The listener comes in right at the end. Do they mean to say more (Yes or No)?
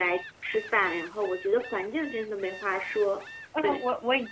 Yes